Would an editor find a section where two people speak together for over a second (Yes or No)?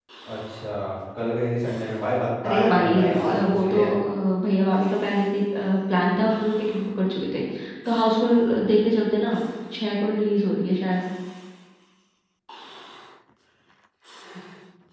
Yes